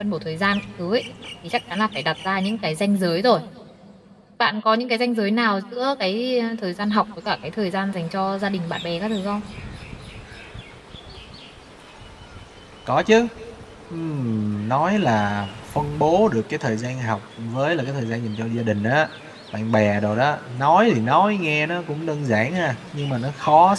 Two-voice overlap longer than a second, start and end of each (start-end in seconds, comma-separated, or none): none